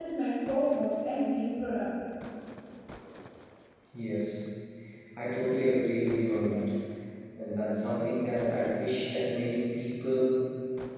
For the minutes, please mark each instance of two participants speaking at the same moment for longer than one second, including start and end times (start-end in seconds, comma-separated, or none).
none